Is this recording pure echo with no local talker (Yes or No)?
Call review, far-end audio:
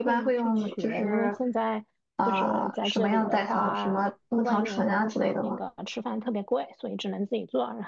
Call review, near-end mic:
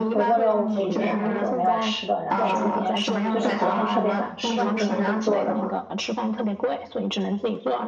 No